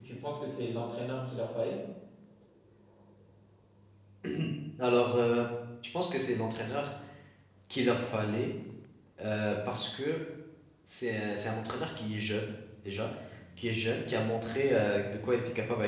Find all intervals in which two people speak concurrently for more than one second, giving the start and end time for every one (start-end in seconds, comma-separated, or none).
none